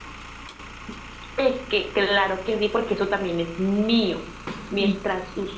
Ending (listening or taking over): listening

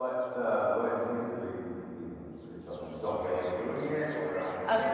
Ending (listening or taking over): taking over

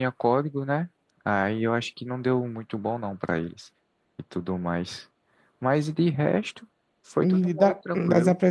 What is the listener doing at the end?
taking over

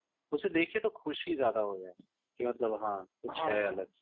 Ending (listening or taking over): taking over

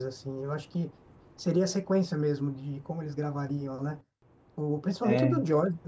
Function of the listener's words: listening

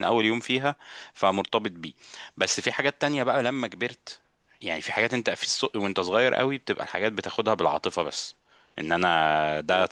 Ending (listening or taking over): listening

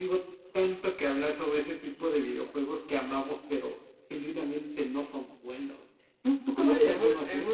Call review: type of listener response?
taking over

